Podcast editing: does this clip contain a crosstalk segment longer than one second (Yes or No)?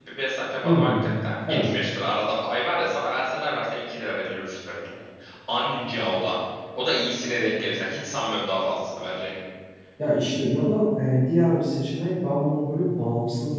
No